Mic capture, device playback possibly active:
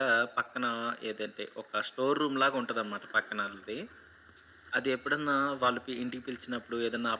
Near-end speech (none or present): none